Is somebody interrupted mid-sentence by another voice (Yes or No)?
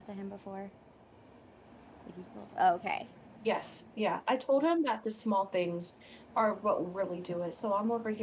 No